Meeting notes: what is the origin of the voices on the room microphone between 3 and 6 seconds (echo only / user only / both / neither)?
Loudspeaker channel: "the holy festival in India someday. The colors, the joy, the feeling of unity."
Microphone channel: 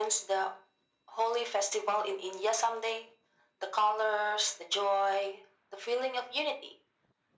echo only